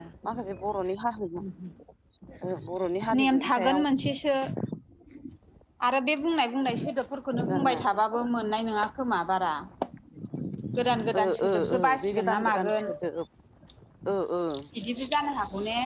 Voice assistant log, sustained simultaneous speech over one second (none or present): present